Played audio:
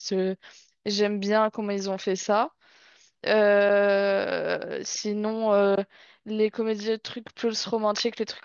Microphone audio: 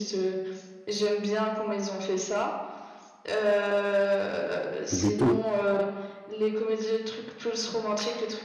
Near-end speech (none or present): present